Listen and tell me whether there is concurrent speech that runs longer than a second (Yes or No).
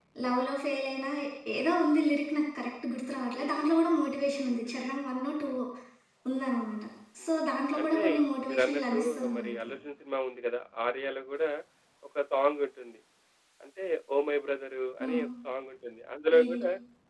Yes